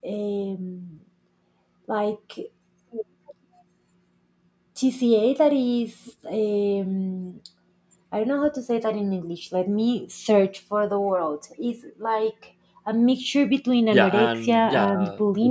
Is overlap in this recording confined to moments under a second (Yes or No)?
No